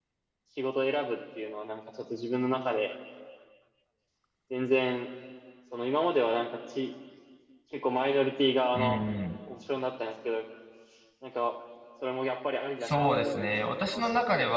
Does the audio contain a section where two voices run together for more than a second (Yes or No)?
Yes